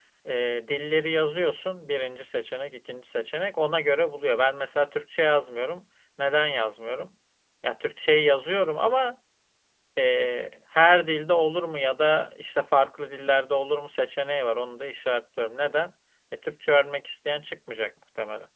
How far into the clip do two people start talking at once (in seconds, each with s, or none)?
none